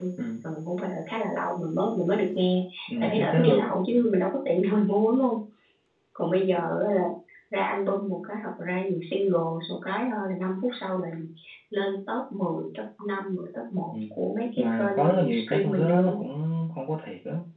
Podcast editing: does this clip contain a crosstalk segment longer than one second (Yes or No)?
Yes